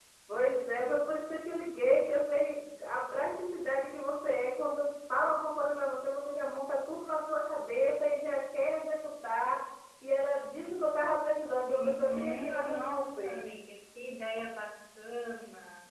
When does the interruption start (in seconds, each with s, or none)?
11.7 s